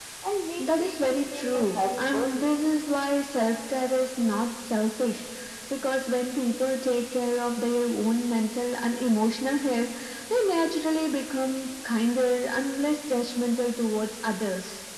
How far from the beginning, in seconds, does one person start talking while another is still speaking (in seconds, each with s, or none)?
0.6 s